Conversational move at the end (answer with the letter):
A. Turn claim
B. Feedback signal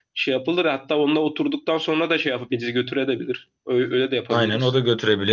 A